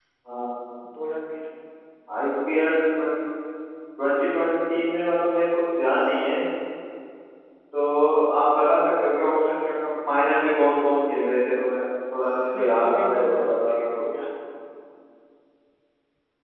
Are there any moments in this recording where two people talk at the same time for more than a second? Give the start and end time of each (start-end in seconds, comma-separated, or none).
12.5-13.9